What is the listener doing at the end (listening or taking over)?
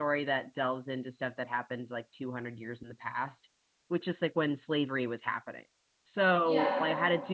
listening